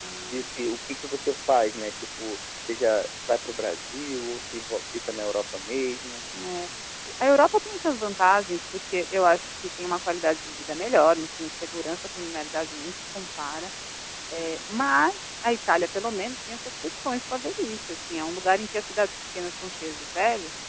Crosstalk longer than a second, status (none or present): none